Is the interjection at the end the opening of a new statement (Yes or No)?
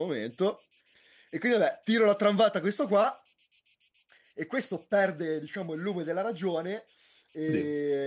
No